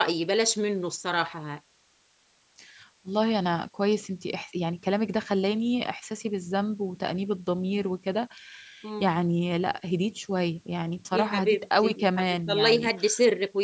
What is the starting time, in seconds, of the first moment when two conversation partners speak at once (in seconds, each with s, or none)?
11.1 s